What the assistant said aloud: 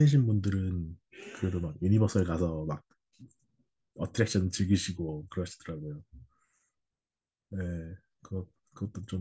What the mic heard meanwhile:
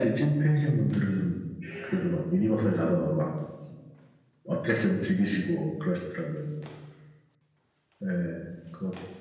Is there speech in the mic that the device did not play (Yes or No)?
No